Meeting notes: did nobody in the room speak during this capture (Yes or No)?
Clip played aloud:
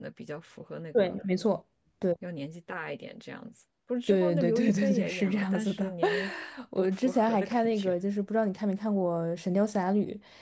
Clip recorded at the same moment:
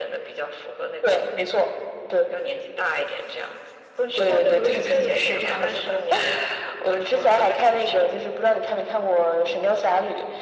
Yes